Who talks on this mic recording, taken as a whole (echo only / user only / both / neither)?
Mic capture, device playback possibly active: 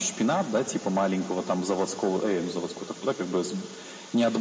echo only